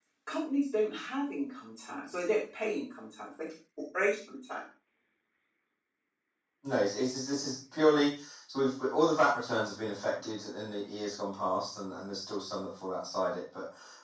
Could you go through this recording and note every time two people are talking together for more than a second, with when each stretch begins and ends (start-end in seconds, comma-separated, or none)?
none